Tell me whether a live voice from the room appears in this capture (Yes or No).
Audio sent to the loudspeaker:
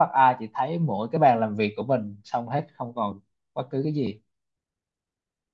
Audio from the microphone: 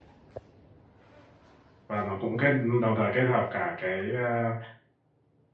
Yes